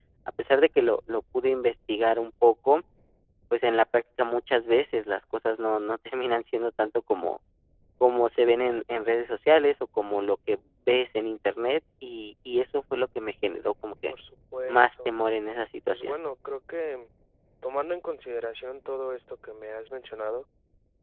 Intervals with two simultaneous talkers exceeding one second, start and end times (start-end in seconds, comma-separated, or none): none